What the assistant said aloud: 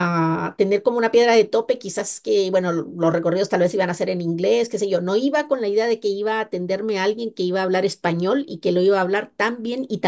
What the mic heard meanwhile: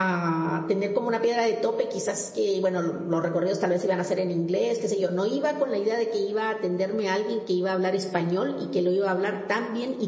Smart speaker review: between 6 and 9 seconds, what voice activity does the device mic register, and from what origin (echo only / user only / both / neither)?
echo only